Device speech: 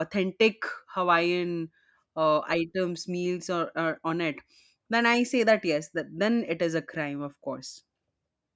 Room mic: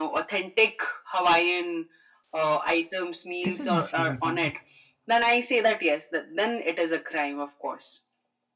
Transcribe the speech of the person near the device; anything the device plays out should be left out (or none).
This is my favorite one.